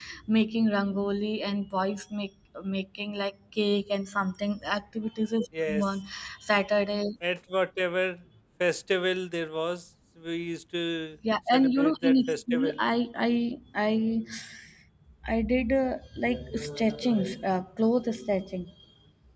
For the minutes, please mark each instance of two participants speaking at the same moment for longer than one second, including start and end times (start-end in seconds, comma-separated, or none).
11.5-12.8